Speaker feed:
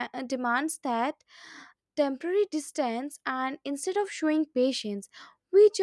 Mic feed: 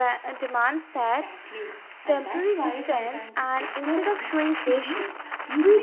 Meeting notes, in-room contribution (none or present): present